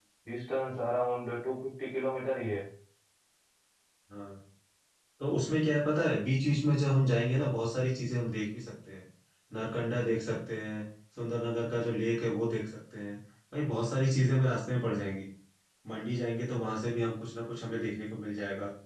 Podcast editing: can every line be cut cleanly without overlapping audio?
Yes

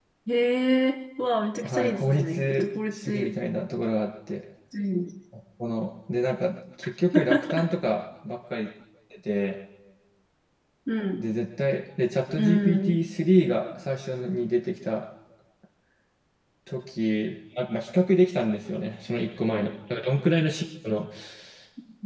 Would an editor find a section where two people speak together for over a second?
Yes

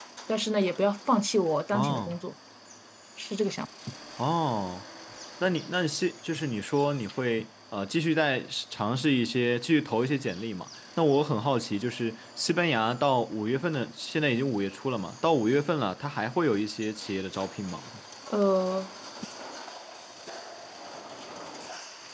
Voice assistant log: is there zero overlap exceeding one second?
Yes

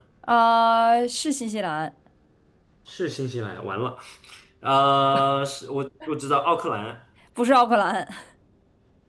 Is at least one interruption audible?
No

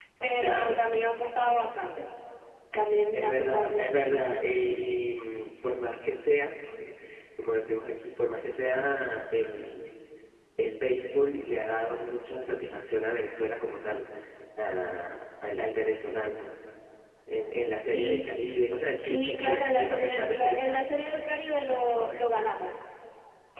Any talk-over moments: Yes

